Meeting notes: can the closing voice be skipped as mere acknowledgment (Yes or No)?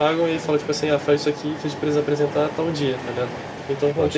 Yes